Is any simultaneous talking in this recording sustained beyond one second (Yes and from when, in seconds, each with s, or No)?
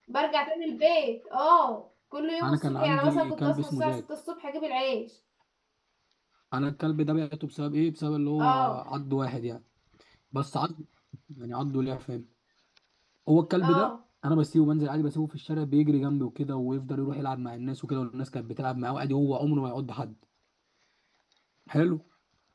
Yes, from 2.4 s